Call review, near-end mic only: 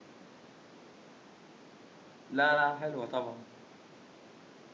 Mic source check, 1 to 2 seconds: neither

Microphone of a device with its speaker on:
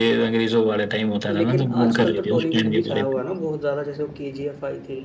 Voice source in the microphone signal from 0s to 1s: echo only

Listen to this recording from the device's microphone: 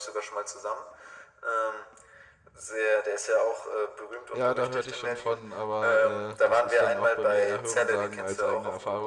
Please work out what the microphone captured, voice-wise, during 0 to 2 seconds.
echo only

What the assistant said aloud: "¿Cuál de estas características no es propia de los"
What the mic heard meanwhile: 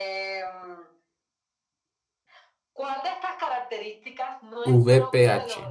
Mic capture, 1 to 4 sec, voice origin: echo only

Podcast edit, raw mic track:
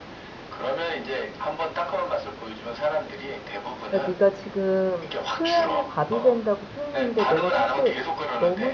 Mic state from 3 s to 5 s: both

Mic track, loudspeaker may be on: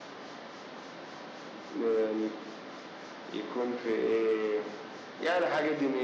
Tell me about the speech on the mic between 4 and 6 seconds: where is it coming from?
echo only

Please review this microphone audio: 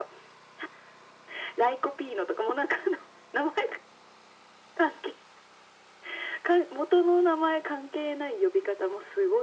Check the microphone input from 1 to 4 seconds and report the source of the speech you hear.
echo only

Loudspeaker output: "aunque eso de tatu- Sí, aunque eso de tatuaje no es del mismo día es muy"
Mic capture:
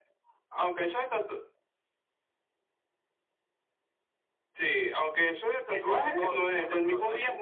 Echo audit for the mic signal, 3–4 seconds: neither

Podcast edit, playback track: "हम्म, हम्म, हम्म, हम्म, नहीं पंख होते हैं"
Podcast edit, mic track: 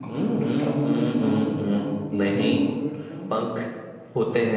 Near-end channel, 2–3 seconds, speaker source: both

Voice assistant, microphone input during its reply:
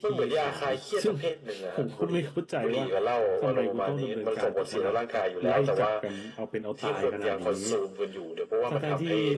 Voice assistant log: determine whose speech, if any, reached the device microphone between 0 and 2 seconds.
both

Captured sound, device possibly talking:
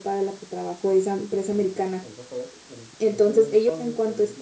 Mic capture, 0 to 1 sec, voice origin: echo only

